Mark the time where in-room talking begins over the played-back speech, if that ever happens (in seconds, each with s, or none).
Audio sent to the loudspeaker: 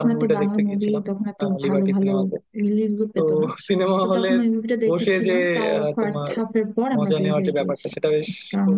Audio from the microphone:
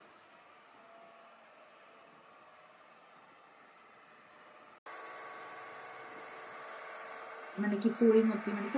7.6 s